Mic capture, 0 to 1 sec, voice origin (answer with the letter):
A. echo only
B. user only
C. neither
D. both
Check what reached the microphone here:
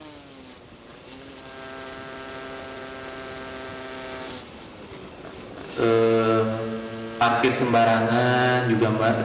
C